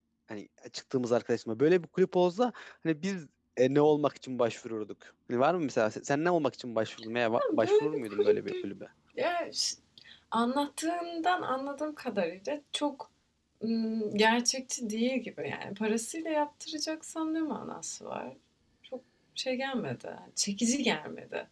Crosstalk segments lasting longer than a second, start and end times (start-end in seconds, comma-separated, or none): 7.4-8.7